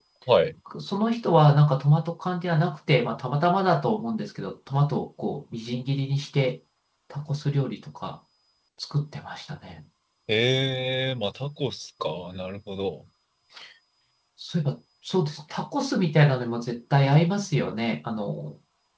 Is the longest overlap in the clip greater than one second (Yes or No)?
No